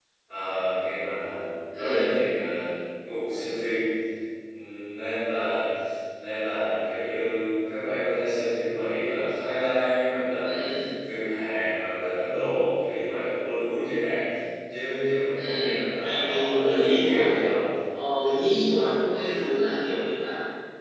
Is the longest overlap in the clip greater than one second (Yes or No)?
Yes